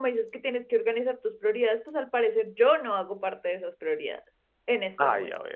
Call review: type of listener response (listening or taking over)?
taking over